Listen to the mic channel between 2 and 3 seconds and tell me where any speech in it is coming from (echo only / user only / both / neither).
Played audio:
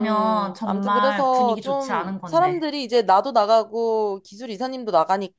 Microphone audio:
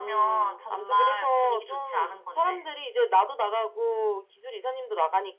echo only